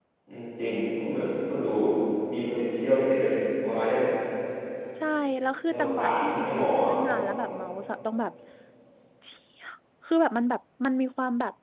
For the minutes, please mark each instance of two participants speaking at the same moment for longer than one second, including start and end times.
5.7-6.9

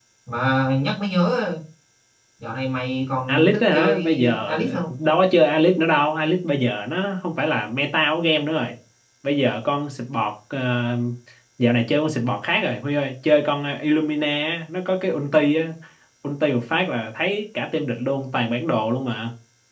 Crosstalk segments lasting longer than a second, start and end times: 3.3-4.9

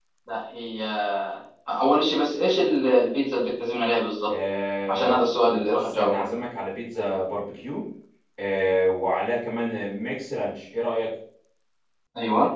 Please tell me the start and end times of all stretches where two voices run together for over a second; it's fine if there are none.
4.9-6.3

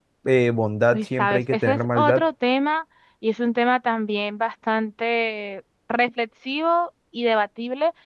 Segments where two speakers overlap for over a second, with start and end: 0.9-2.2

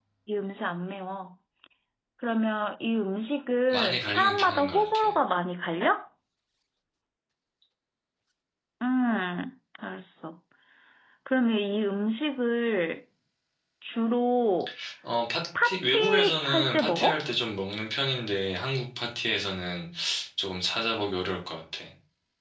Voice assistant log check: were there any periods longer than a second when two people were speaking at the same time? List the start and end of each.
3.7-5.2, 15.6-17.2

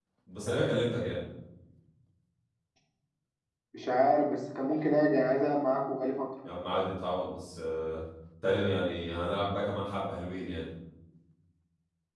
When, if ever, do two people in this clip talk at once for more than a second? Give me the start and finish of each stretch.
none

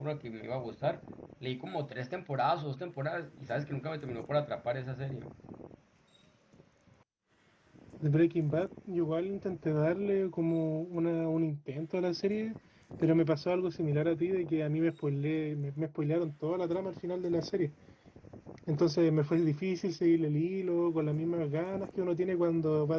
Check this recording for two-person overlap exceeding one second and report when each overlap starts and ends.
none

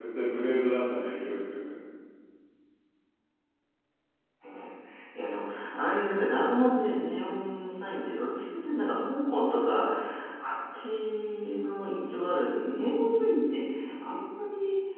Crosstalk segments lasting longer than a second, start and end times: none

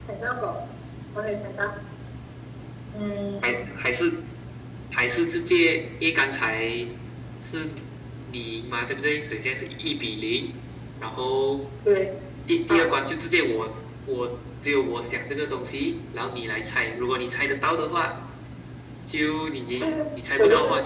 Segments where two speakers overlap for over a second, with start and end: none

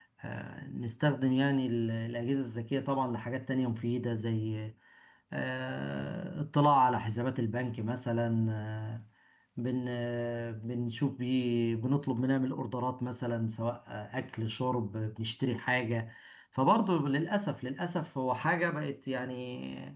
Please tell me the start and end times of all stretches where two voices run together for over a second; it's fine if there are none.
none

